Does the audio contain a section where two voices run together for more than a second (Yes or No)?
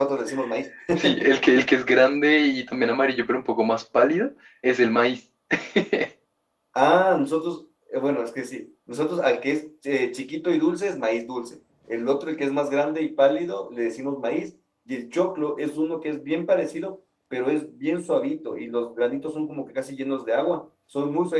No